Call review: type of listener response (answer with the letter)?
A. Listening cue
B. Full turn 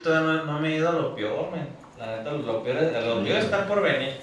A